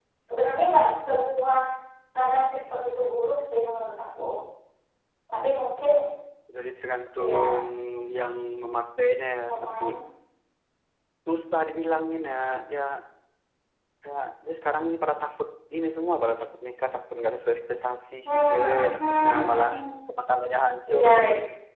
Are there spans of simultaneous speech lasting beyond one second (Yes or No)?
Yes